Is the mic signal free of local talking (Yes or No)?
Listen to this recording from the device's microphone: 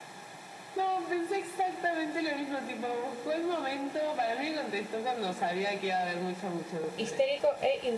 No